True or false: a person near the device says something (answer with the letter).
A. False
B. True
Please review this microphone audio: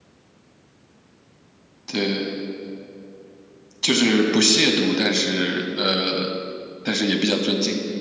A